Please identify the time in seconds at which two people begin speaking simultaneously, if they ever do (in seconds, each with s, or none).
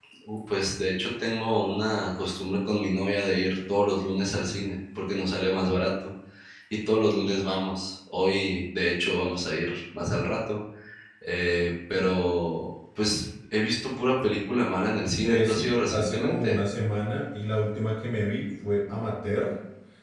15.2 s